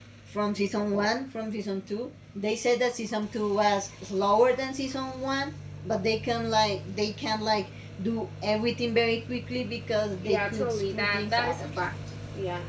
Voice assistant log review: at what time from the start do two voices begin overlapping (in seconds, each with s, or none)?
10.2 s